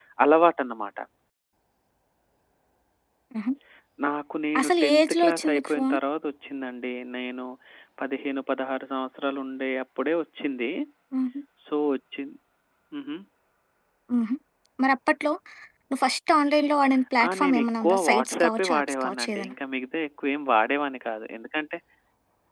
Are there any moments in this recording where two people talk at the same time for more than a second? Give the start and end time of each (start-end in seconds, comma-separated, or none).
4.6-6.0, 17.3-19.5